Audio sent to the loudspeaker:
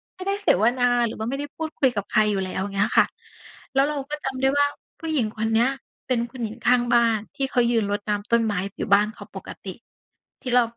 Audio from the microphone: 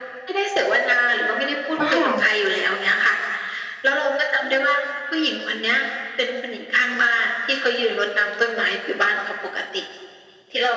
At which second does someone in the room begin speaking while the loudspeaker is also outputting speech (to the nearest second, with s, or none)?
2 s